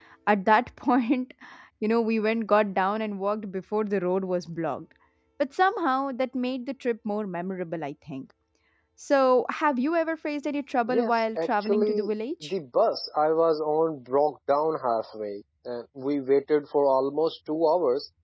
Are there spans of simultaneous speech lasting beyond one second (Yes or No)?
Yes